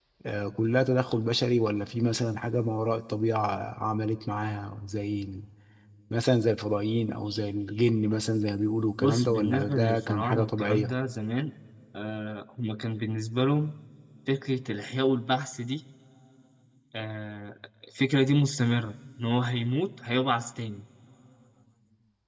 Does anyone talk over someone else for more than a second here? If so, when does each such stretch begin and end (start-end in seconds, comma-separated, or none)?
9.0-10.9